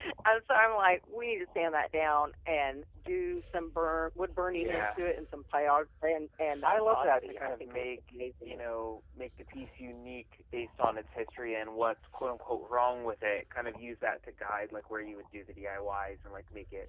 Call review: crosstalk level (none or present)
present